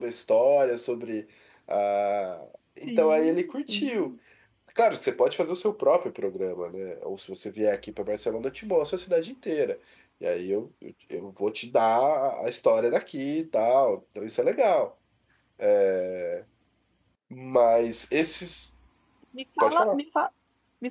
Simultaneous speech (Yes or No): Yes